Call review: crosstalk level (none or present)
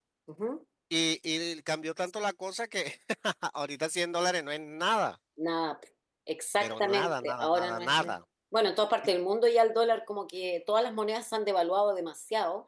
present